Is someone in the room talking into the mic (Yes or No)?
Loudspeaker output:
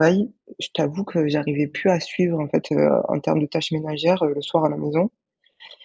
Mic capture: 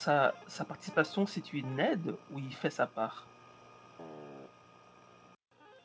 Yes